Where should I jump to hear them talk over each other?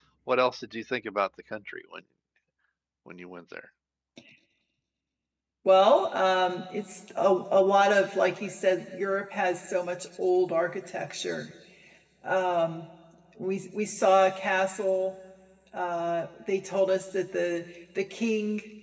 none

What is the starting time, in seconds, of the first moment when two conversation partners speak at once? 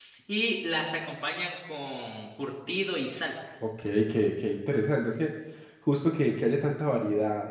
none

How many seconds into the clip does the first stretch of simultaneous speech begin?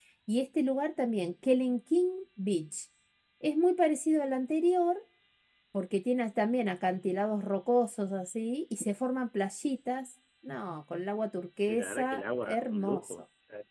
11.7 s

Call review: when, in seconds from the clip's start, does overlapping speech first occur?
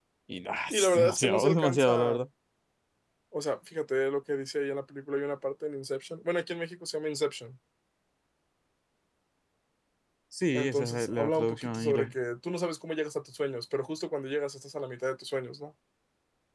0.7 s

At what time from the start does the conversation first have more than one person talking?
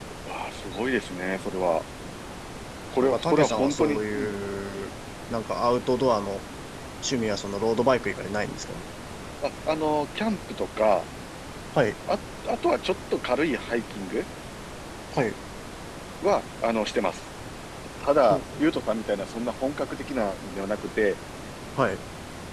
3.0 s

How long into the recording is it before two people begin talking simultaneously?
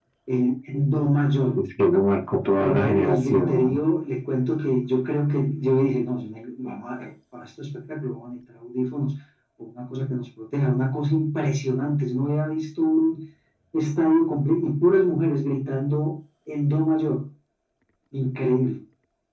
2.6 s

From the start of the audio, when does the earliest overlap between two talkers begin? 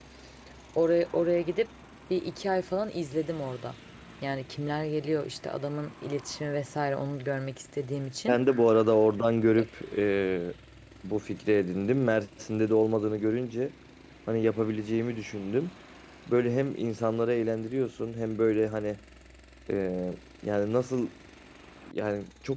none

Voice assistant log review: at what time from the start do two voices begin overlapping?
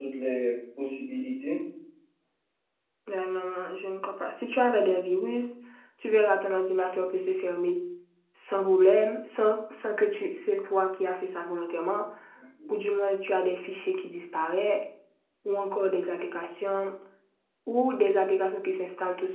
none

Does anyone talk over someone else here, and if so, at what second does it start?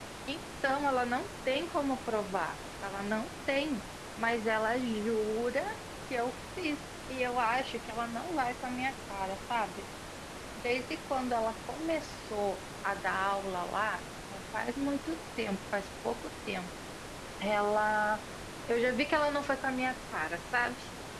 none

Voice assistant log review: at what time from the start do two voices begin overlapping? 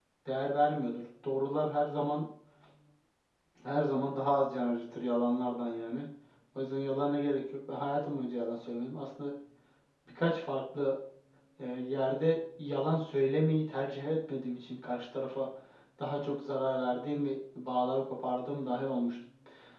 none

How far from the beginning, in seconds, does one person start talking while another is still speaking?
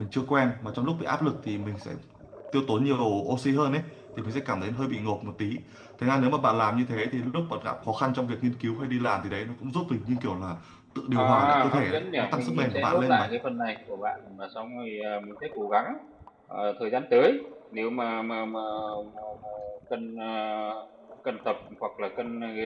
11.2 s

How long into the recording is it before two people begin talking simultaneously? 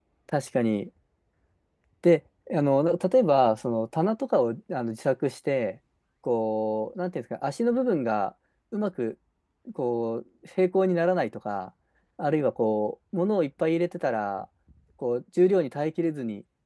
none

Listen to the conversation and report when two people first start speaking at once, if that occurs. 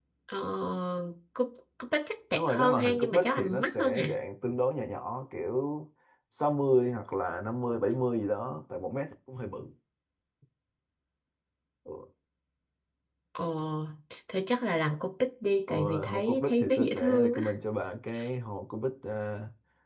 2.3 s

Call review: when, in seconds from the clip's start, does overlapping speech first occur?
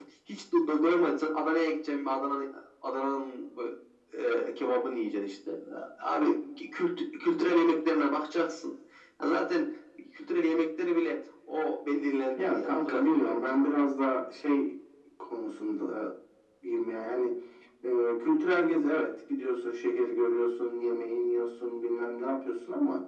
12.4 s

